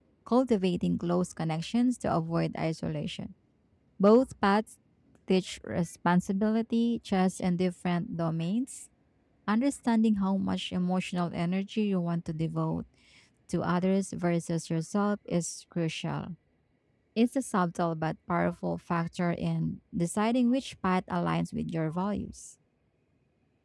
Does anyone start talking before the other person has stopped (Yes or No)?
No